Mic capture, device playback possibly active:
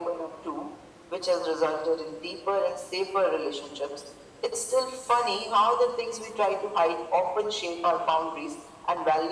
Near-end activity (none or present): none